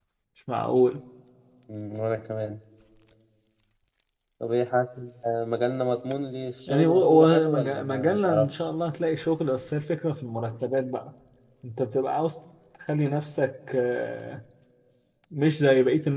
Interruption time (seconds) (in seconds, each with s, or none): 6.7 s